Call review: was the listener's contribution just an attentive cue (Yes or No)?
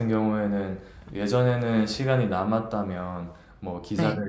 Yes